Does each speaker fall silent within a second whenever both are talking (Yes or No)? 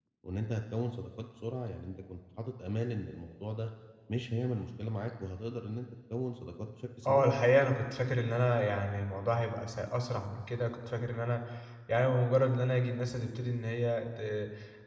Yes